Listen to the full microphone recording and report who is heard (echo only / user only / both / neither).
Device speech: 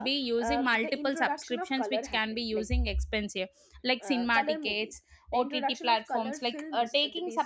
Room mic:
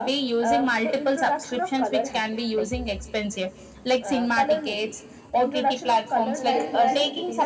both